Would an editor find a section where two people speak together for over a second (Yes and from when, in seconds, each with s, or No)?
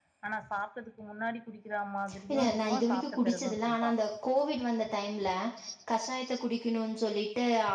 Yes, from 2.3 s